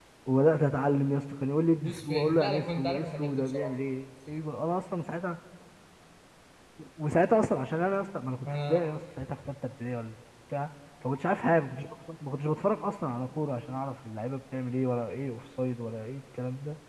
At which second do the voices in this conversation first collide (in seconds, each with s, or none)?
1.8 s